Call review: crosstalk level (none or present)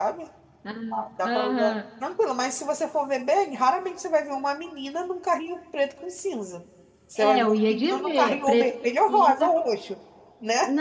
present